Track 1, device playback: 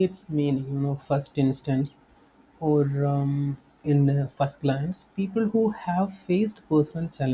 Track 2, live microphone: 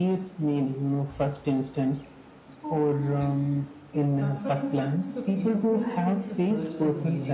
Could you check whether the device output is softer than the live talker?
No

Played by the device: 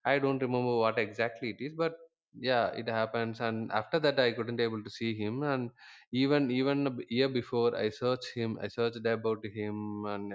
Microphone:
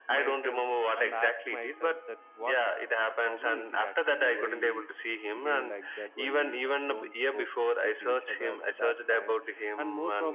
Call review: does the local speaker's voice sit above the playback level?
No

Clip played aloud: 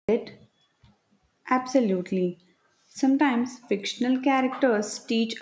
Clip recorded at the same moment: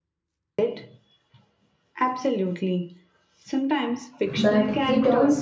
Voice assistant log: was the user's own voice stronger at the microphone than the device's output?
Yes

